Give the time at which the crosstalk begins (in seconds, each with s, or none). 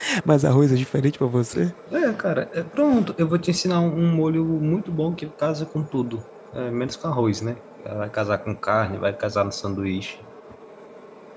none